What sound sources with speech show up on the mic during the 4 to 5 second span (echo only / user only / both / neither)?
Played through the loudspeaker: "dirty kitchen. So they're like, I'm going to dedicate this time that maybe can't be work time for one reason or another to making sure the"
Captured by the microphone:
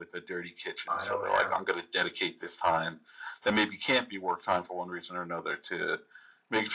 echo only